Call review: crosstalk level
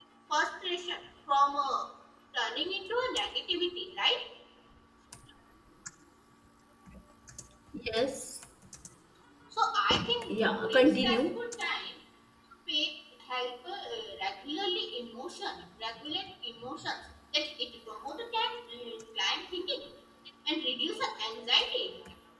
present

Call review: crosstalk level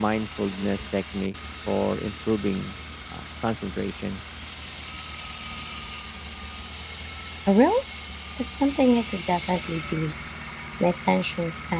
none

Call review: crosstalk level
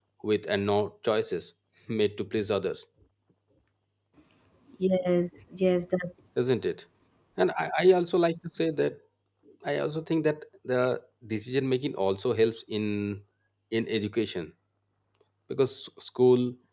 none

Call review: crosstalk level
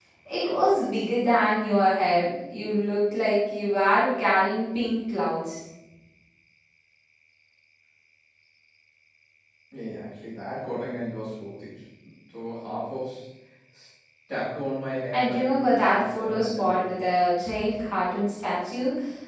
present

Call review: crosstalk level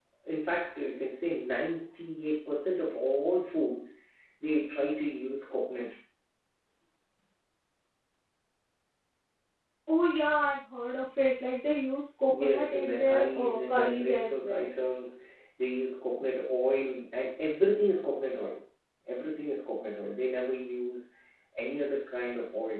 present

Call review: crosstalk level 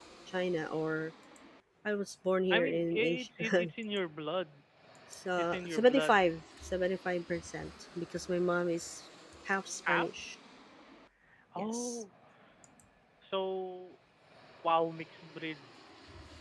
present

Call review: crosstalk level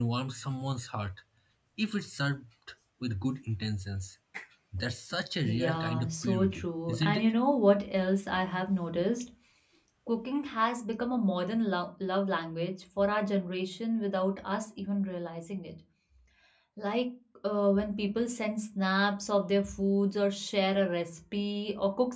present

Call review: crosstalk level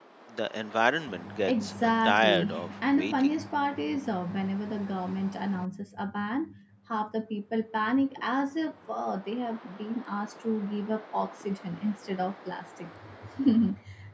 present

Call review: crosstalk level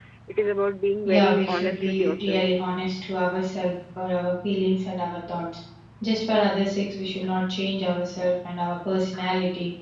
present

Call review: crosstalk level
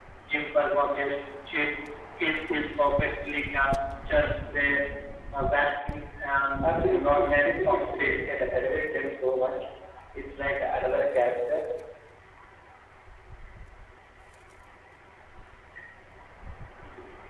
present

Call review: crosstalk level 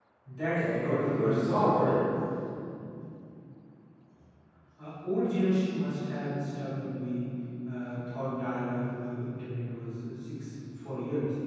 present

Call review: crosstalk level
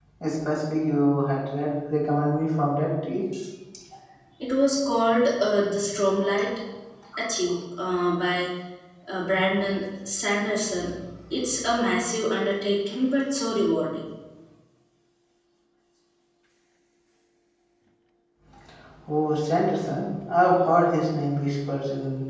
none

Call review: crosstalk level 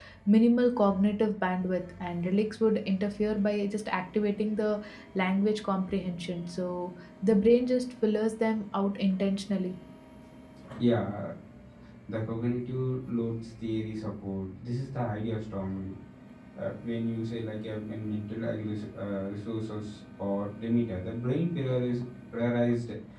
none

